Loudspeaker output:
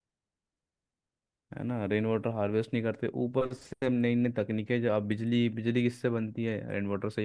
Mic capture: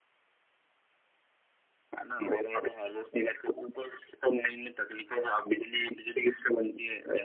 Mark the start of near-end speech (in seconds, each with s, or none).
none